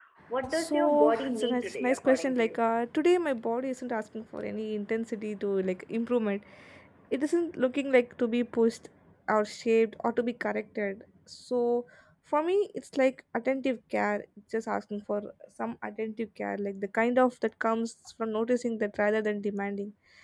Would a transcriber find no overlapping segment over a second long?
No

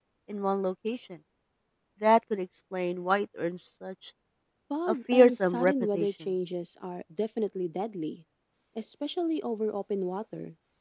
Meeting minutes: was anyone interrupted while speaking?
Yes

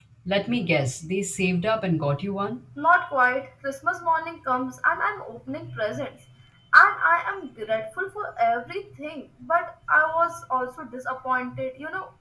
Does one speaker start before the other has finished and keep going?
No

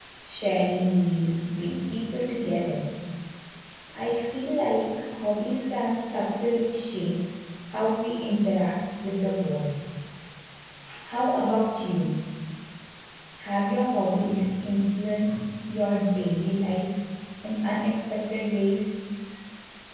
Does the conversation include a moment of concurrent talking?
No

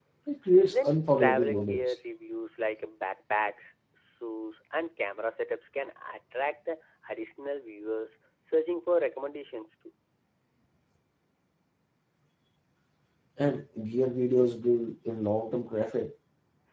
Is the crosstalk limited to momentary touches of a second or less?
No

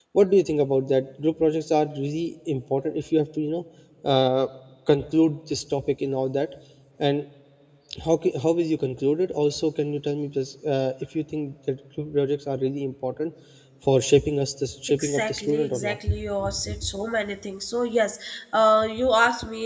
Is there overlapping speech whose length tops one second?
Yes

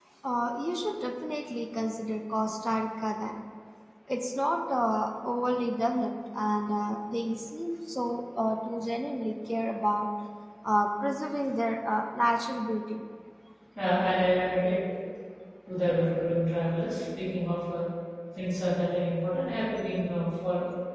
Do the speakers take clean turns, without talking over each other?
Yes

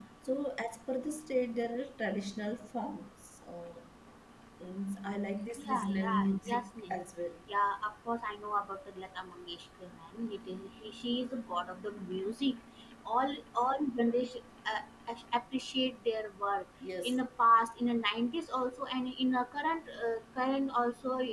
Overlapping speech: Yes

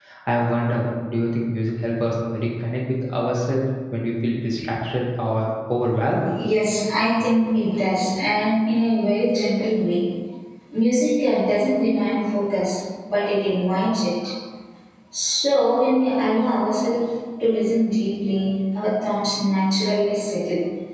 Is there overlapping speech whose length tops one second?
No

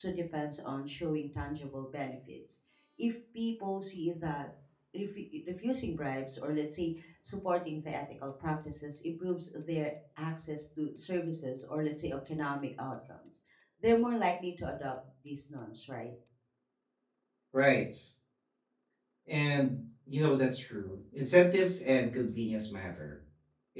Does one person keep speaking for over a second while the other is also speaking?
No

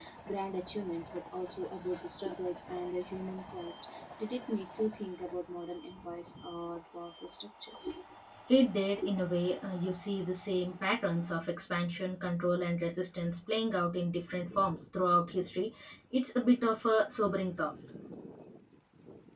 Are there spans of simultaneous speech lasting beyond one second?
No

